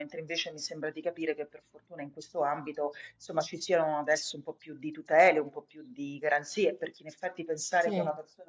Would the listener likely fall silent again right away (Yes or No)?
Yes